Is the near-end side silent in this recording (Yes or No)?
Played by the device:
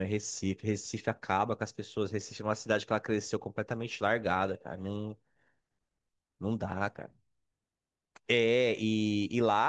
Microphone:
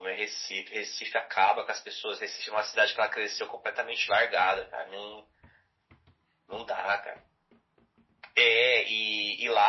Yes